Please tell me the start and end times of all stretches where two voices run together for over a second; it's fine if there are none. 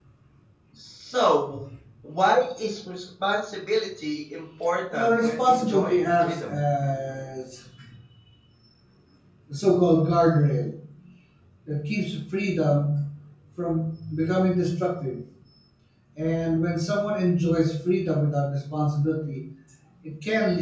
4.9-6.6

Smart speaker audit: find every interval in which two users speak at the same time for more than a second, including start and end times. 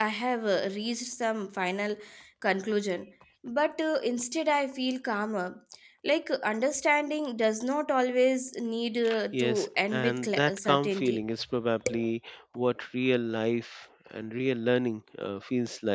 9.3-11.2

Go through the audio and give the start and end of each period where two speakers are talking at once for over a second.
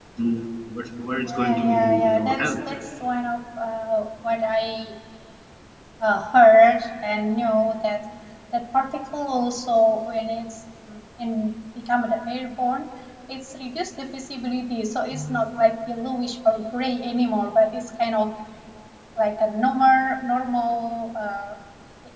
1.2-2.5

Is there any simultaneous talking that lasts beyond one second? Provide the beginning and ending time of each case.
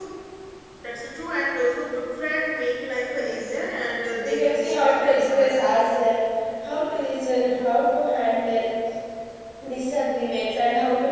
4.2-5.5

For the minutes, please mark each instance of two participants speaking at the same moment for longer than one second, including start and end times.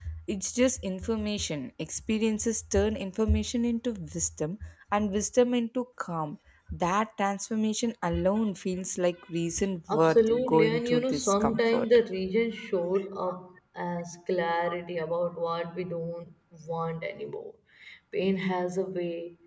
9.9-11.9

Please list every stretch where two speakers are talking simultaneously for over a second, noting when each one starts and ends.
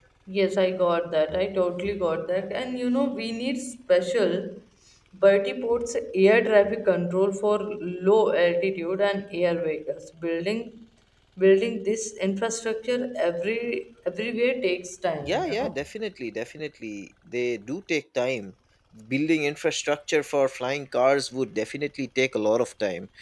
none

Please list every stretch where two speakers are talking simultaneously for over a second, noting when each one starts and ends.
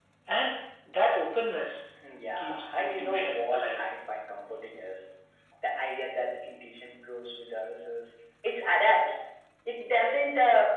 2.4-3.8

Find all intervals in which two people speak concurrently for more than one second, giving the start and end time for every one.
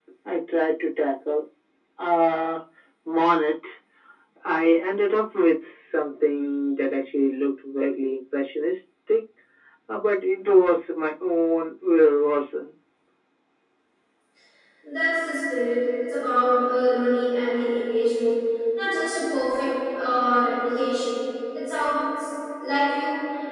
none

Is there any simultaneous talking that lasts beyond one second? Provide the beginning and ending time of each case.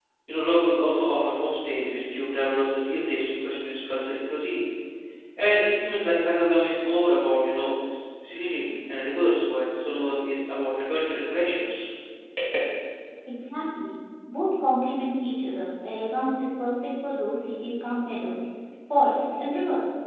none

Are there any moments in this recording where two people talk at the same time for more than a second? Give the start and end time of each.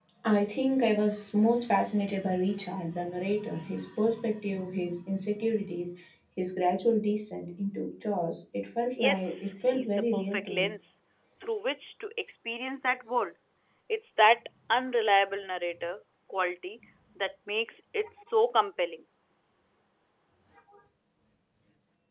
9.0-10.6

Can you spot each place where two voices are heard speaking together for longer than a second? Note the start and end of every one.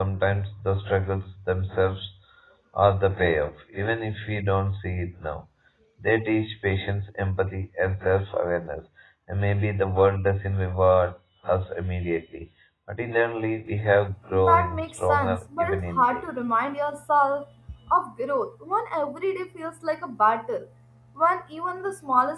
14.4-16.2

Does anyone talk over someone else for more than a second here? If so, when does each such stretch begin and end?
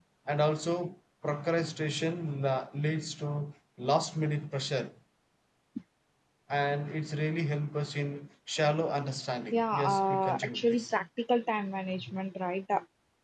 9.5-10.9

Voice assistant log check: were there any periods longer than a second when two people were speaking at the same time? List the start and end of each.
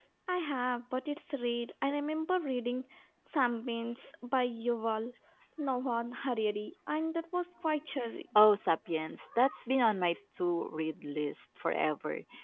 none

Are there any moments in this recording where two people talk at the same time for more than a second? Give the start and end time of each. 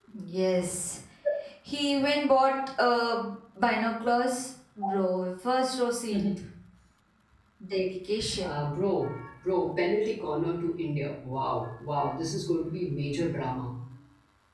none

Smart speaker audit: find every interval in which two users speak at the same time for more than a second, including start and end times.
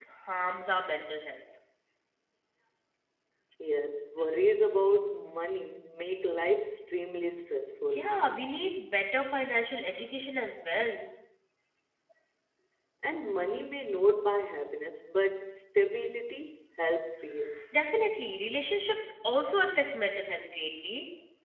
none

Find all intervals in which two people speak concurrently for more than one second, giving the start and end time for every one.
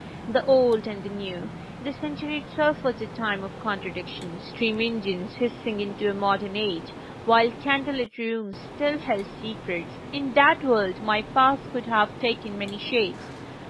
none

